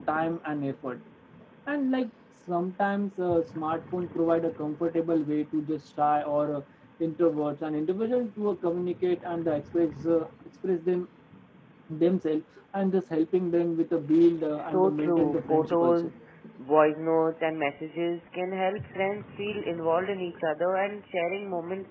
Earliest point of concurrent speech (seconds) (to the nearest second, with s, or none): 15 s